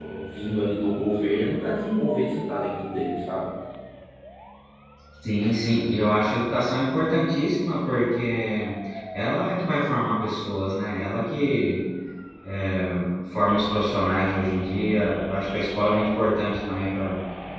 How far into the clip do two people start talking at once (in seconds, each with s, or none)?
none